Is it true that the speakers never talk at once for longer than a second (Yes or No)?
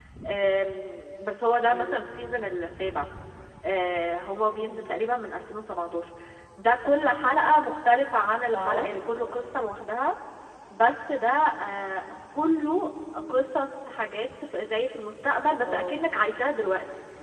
Yes